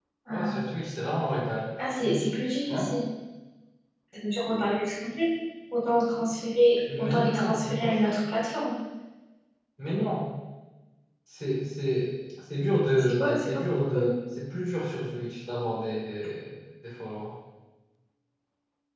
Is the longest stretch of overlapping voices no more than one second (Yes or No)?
No